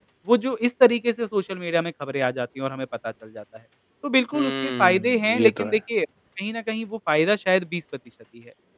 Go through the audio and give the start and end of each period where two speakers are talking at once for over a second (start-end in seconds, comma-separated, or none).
4.3-5.8